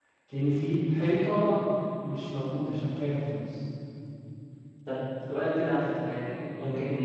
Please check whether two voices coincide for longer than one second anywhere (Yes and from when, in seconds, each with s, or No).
No